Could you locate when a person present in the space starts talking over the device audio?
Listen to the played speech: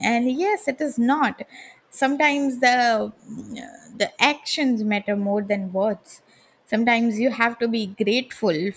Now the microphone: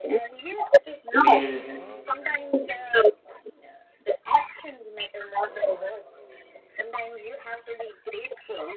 1.2 s

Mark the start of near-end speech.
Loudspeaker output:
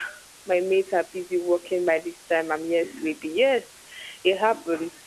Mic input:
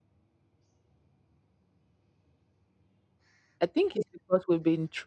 3.6 s

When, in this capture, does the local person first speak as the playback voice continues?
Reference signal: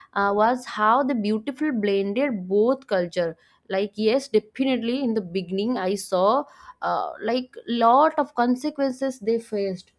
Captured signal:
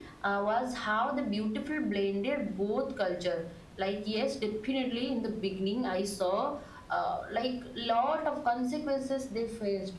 none

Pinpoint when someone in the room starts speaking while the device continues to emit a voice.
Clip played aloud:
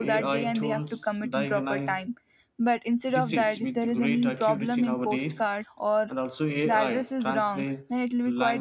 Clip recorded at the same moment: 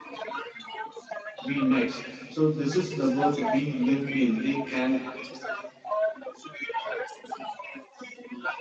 1.4 s

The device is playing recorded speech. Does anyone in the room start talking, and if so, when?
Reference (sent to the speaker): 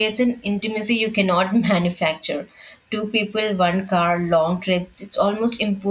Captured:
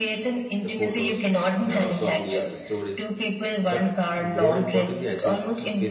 0.6 s

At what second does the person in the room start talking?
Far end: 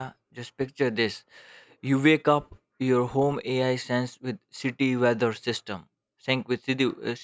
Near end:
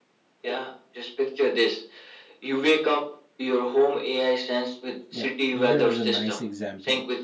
5.1 s

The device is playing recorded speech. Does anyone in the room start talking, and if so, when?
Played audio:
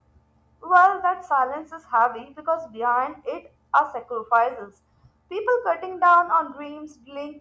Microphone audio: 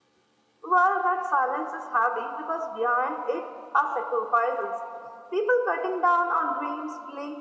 none

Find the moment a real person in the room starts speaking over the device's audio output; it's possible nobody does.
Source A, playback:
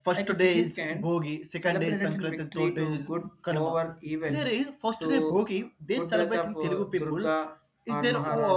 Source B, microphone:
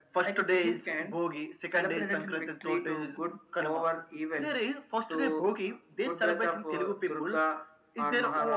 none

